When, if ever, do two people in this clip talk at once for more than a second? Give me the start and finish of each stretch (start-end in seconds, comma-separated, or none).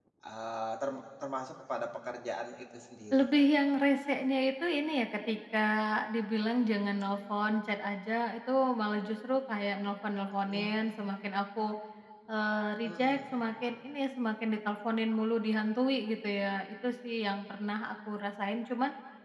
none